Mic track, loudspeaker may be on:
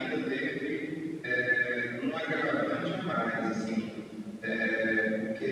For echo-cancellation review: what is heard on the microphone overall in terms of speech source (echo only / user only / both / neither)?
echo only